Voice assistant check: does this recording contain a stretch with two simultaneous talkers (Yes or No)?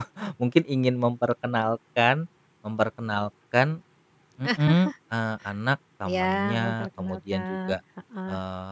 Yes